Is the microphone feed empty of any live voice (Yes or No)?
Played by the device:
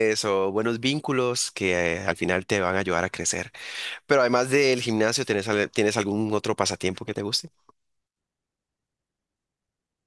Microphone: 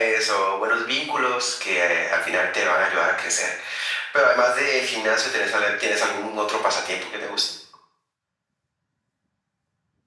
Yes